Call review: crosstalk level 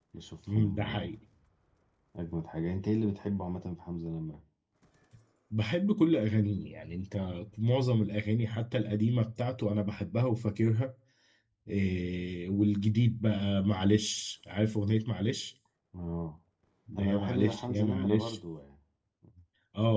present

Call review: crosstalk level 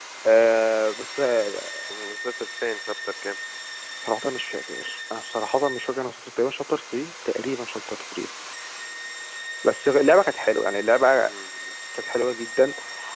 none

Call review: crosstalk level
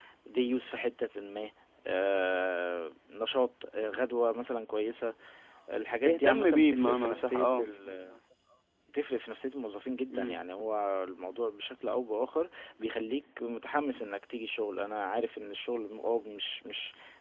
present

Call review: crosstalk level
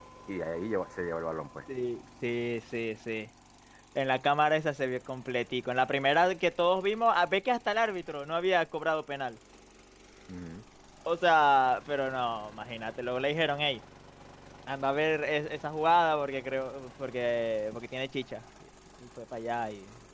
none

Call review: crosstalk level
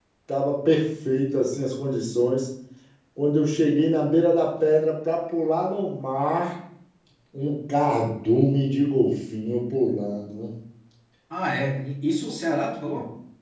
none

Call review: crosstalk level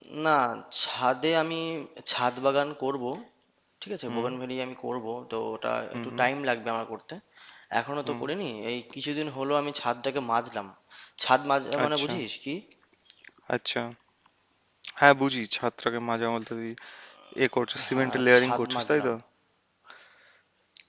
present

